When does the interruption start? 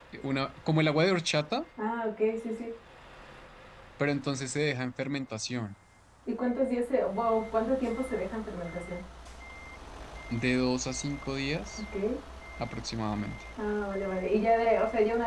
none

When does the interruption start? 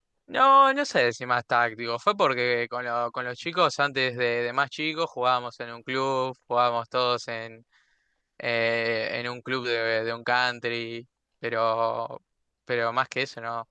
none

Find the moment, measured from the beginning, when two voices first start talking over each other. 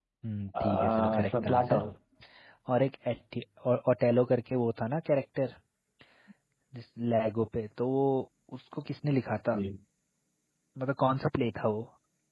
1 s

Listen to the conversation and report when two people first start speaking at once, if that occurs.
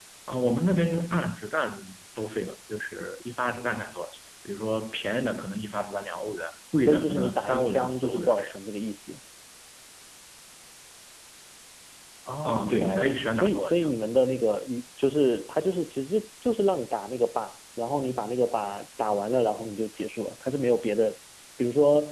7 s

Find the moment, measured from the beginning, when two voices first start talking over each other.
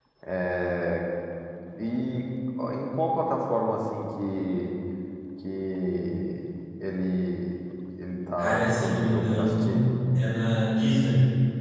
8 s

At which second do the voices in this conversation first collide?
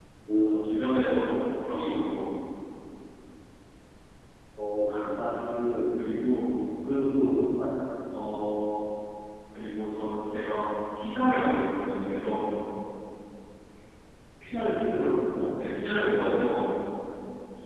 none

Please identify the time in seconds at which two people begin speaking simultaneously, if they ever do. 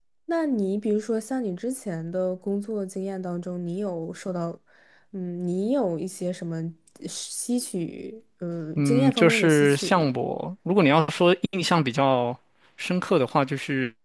9 s

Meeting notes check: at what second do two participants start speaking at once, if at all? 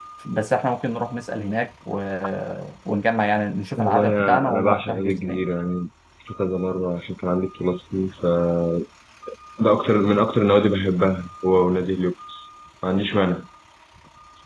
4 s

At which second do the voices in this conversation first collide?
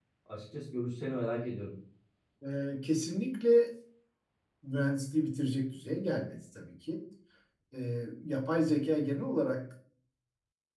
none

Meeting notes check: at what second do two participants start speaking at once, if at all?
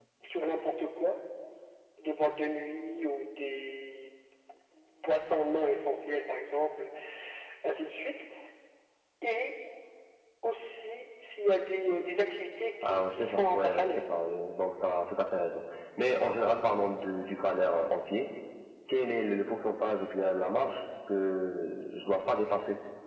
13 s

